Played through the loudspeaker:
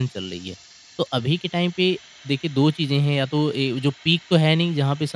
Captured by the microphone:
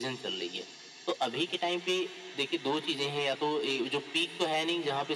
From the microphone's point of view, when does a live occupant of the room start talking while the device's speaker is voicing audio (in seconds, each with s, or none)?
none